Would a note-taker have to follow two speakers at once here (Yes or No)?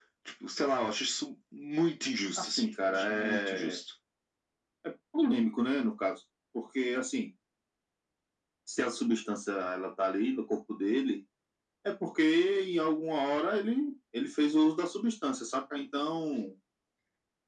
Yes